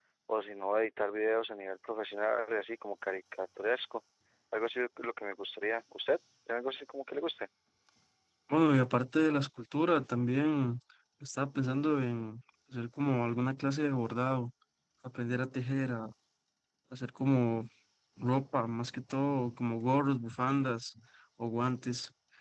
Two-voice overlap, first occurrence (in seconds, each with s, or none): none